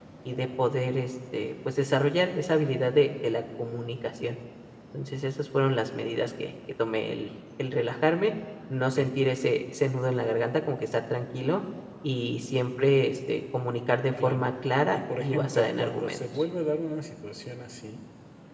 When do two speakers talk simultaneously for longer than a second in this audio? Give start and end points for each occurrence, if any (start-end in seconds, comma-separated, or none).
14.9-16.2